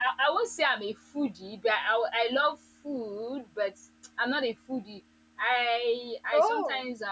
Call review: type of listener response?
listening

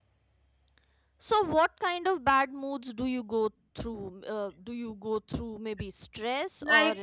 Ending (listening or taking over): taking over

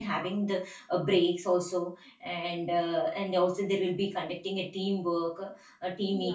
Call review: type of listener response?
listening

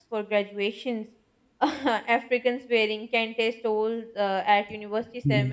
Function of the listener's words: listening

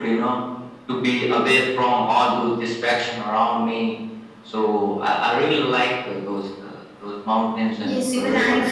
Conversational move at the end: taking over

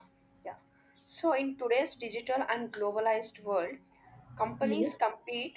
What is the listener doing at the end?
listening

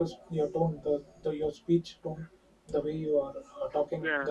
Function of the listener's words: listening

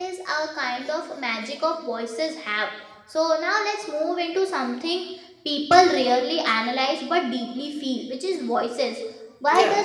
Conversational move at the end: listening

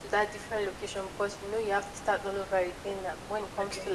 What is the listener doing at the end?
listening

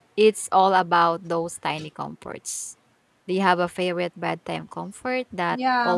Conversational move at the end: taking over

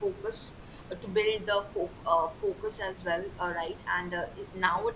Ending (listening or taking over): listening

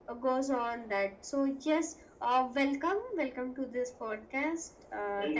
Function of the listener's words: taking over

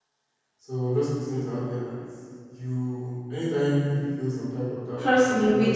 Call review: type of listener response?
taking over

